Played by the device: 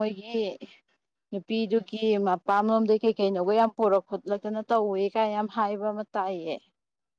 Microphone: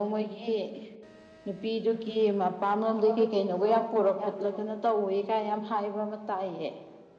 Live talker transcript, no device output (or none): ꯊꯕꯛꯀ ꯆꯤꯟꯕ꯭ꯔꯣ ꯋꯥ ꯌꯥꯕ꯭ꯔꯣ